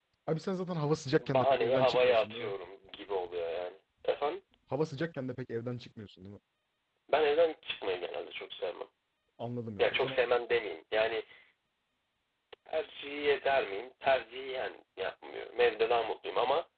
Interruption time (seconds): 1.2 s

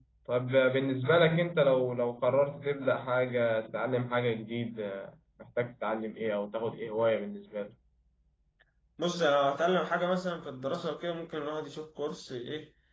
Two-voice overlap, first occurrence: none

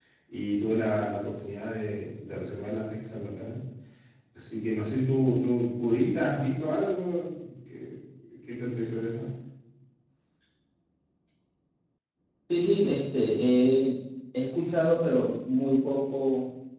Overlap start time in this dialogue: none

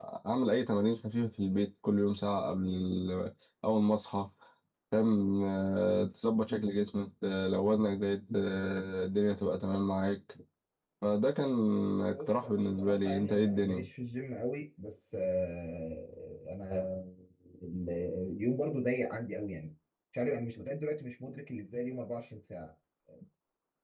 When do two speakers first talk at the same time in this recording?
12.1 s

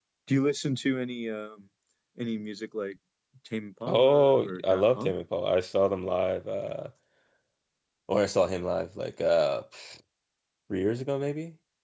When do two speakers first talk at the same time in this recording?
3.9 s

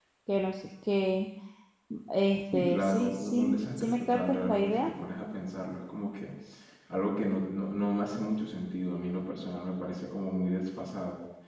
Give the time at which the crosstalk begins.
2.5 s

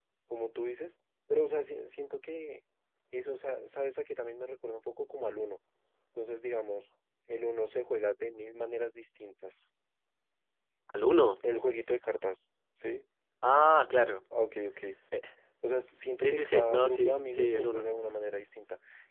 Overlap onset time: 16.2 s

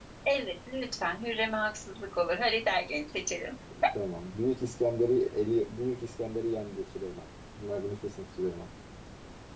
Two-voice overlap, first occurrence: none

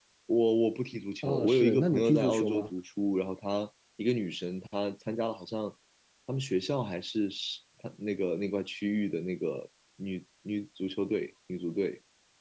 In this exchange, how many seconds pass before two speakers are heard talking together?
1.2 s

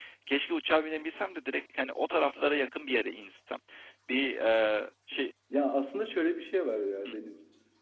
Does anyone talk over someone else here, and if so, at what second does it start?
none

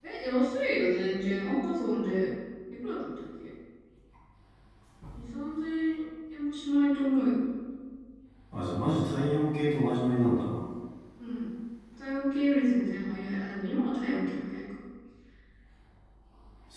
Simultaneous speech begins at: none

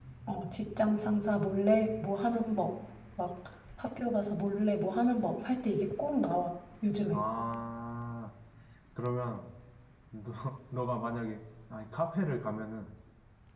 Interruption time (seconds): none

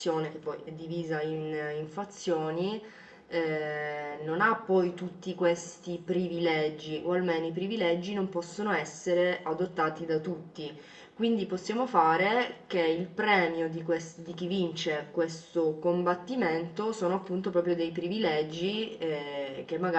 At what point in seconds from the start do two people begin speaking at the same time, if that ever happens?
none

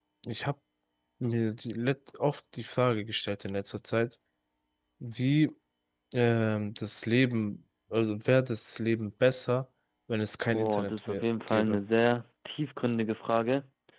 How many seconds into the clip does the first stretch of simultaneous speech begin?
10.5 s

